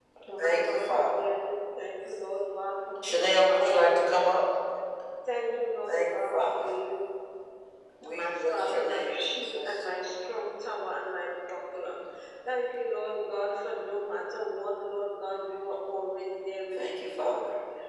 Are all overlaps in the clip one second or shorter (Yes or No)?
No